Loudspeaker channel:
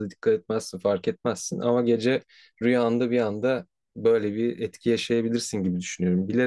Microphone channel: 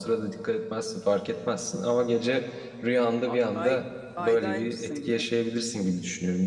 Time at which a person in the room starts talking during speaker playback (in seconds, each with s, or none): 3.2 s